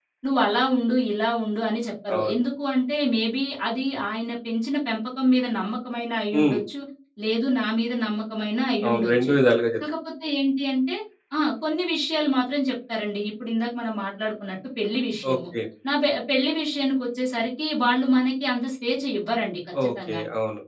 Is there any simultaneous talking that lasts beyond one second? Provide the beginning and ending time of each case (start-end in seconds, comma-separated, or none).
none